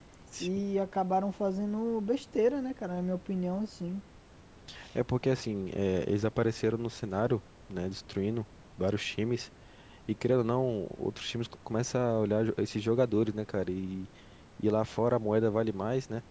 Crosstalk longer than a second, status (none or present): none